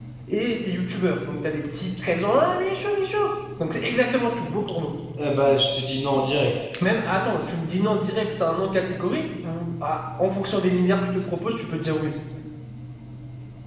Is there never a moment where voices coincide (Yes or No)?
Yes